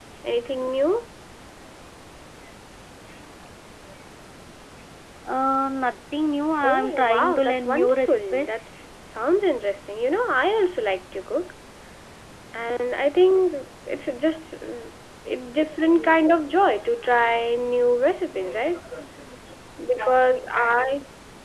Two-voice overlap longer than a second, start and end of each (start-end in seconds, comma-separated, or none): 6.6-8.6